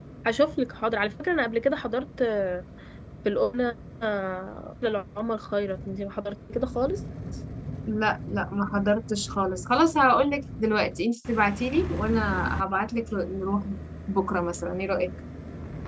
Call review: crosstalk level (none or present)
none